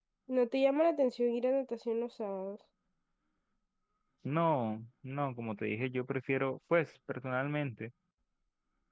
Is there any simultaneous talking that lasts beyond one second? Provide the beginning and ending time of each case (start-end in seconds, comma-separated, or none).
none